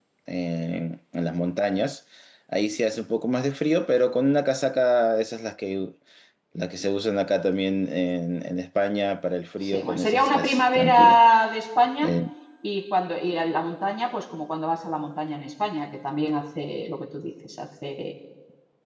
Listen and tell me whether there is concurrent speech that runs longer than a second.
Yes, from 9.6 s

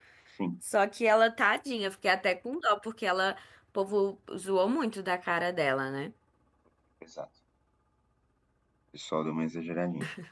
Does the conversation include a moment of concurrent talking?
No

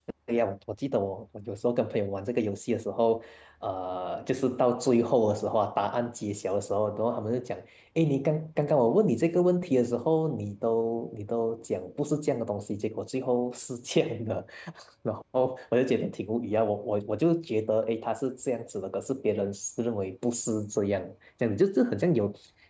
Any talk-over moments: No

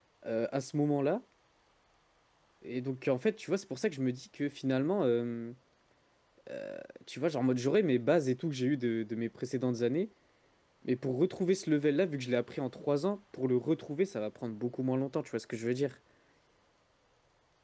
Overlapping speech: No

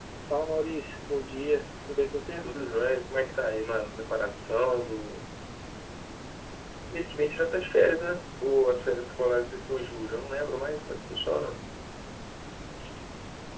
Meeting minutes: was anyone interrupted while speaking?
No

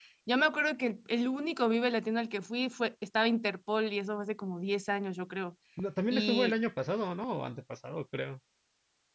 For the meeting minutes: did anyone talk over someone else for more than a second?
No

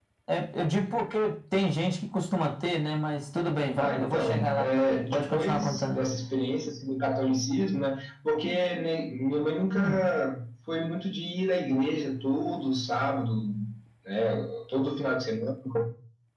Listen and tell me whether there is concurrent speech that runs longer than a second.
Yes, from 3.8 s

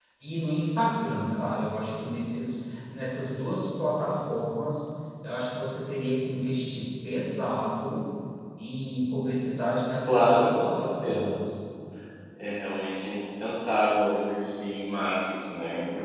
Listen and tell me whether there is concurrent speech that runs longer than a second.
Yes, from 10.1 s

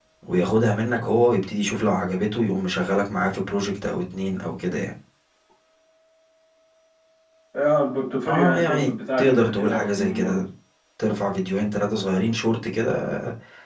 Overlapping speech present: Yes, from 8.3 s

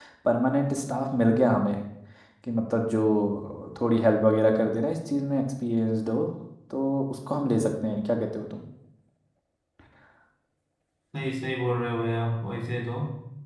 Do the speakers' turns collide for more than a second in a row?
No

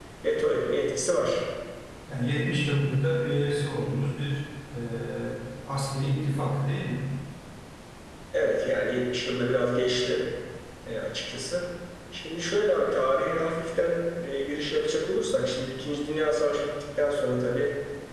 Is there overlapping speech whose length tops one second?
No

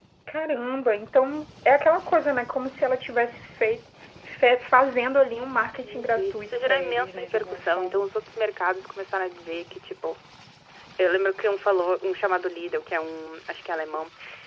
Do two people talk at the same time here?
Yes, from 5.8 s

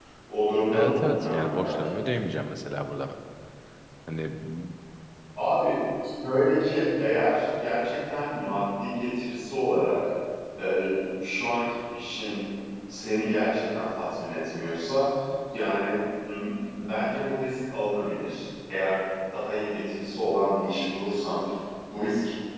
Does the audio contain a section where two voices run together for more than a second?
Yes, from 0.7 s

